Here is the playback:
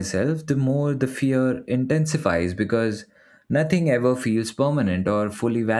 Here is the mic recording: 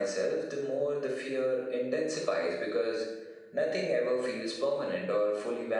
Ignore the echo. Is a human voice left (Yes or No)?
No